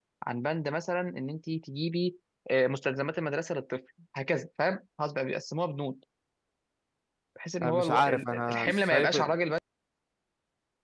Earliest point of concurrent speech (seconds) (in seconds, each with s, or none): 7.6 s